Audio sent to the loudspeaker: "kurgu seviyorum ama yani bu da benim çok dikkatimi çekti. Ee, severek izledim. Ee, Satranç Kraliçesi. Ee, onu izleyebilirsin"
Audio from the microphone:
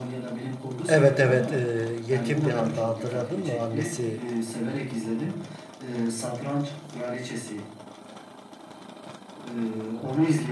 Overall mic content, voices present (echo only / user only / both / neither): both